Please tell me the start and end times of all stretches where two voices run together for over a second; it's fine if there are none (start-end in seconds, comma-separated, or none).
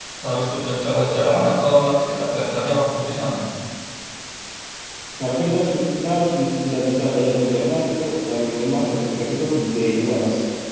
none